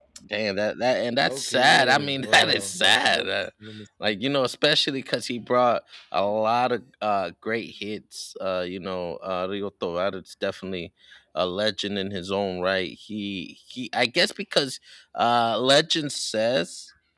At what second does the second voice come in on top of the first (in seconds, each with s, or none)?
1.2 s